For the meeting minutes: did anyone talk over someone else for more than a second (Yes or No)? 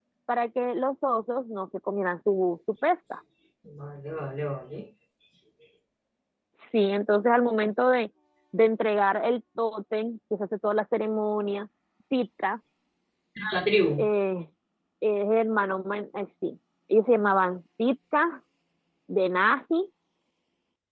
No